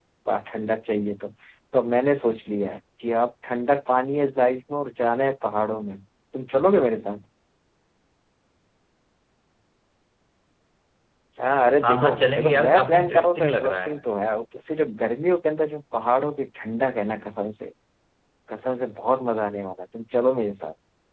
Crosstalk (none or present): present